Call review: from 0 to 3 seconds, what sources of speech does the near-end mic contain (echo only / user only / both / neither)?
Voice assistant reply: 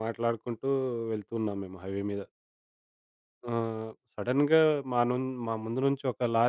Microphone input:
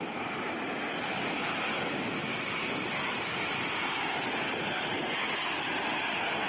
neither